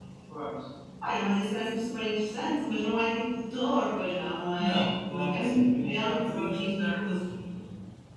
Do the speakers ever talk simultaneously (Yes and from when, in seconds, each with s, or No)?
Yes, from 4.6 s